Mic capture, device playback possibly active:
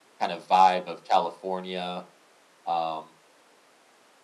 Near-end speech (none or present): present